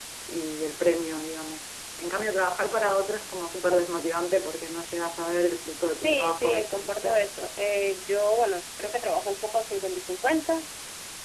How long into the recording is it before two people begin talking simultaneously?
6.0 s

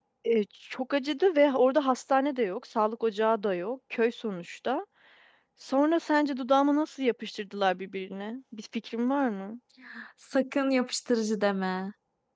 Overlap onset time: none

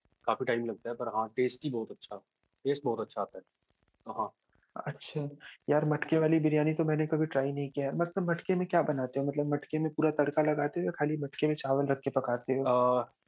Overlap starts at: none

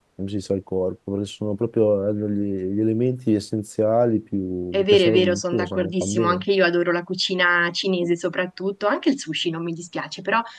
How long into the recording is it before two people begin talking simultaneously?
4.7 s

